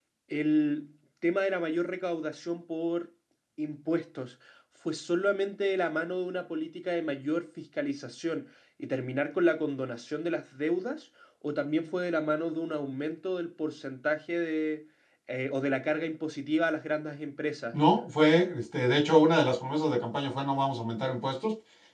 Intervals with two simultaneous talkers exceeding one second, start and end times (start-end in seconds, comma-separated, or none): none